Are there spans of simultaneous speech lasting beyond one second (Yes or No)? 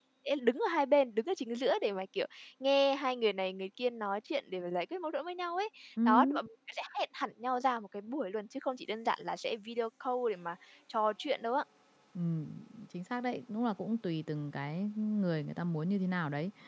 No